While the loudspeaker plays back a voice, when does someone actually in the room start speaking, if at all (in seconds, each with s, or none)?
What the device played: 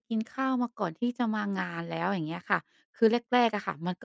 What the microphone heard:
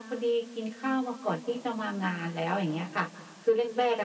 none